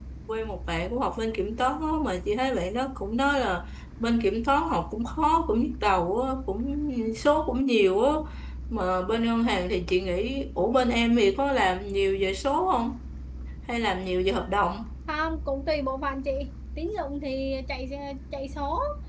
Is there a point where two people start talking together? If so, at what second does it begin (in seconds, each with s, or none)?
none